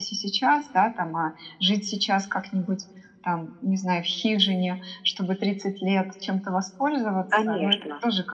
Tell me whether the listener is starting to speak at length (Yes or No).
No